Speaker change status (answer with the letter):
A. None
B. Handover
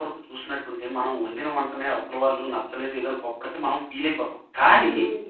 A